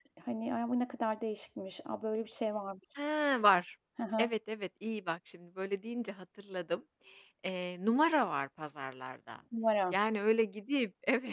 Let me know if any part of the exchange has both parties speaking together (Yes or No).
No